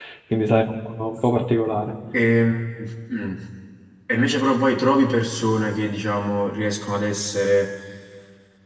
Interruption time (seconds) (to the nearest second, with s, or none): none